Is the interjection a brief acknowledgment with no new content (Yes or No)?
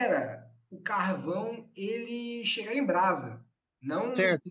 No